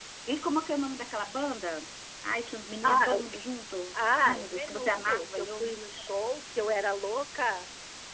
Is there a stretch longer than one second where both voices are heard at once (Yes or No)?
Yes